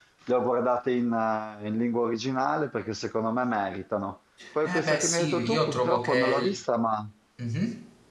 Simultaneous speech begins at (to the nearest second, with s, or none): 4 s